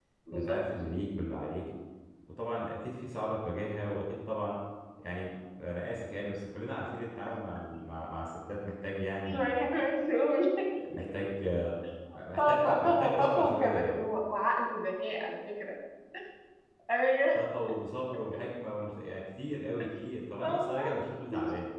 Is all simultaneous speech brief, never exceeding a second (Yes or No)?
No